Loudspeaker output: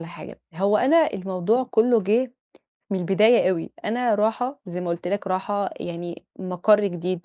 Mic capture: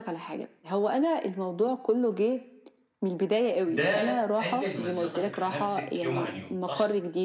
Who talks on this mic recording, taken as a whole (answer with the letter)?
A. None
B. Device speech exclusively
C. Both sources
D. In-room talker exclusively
C